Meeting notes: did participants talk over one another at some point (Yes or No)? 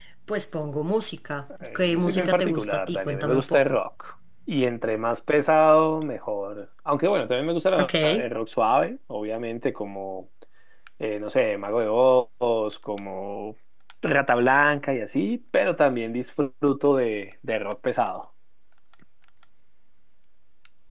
Yes